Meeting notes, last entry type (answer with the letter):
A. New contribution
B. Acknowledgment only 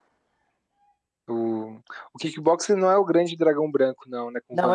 A